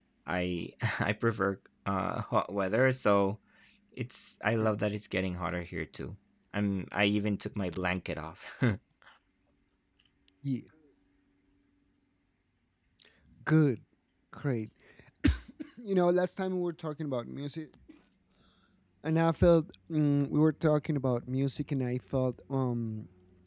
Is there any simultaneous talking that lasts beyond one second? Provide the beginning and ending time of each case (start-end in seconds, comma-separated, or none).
none